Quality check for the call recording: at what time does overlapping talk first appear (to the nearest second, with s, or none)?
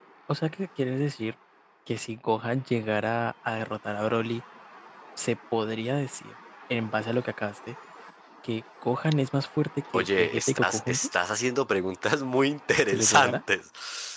10 s